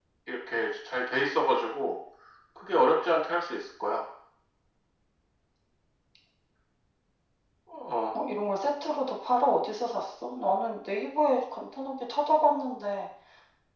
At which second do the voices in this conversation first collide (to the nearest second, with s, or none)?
none